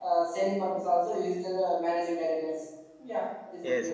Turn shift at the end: Yes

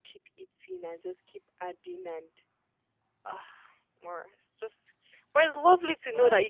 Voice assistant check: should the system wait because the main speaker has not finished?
Yes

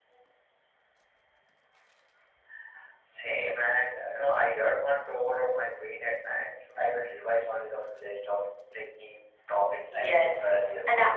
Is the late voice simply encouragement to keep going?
No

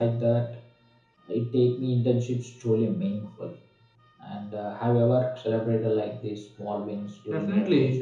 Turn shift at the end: Yes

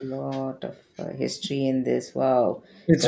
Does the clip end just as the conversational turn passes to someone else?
No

